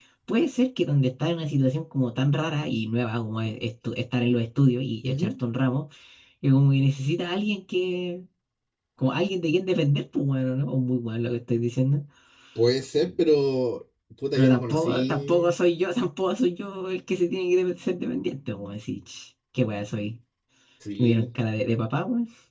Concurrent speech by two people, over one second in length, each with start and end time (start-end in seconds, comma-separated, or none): 14.3-15.6